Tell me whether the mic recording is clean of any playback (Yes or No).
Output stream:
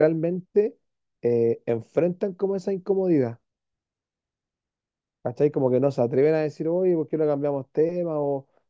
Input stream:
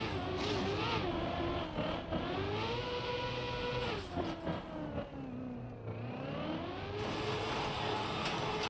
Yes